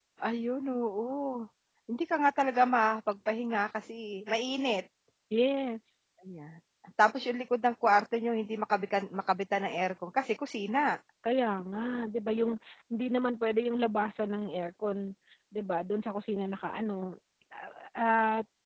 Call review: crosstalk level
none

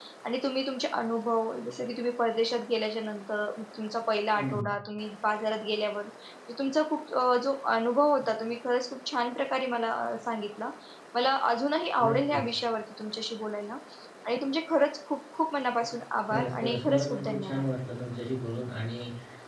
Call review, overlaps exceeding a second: present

